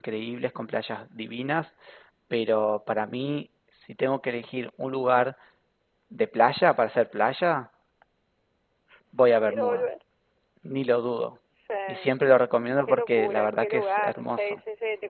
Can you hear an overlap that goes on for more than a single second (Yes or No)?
Yes